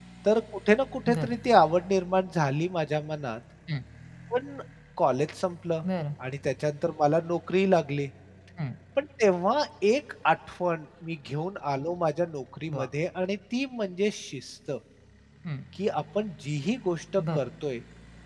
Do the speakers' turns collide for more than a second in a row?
No

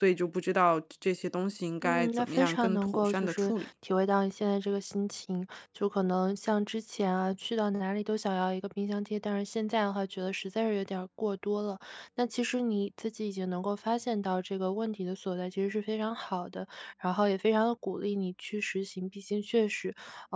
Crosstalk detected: Yes, from 1.8 s

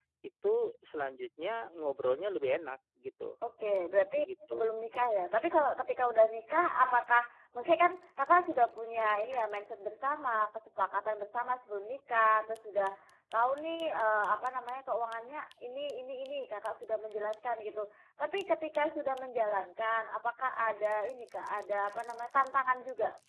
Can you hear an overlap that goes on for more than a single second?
No

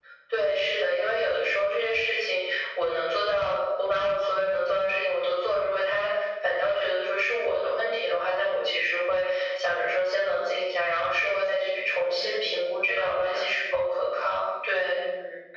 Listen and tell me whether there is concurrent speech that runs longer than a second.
Yes, from 12.2 s

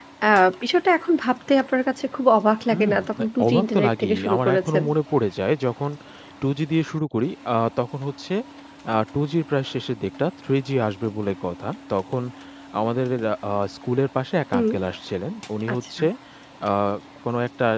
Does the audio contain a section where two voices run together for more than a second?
Yes, from 2.7 s

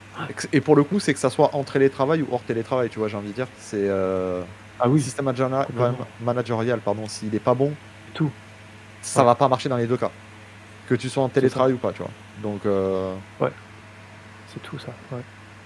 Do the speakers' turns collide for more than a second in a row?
No

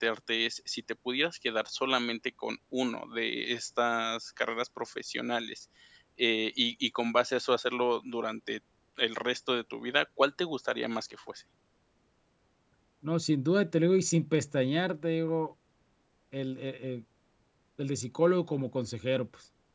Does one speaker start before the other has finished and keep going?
No

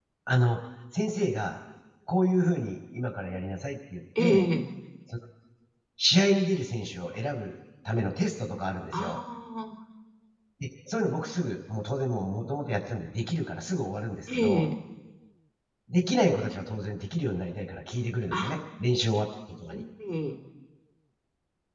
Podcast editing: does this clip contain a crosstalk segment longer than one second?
No

